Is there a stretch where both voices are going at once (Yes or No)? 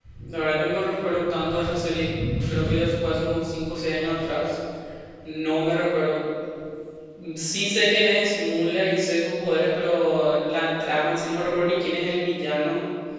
No